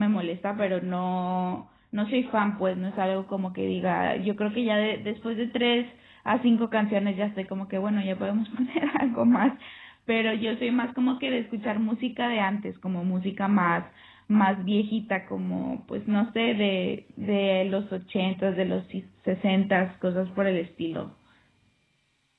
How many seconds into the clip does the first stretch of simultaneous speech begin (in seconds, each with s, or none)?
none